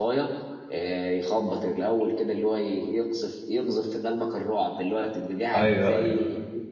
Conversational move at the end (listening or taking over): listening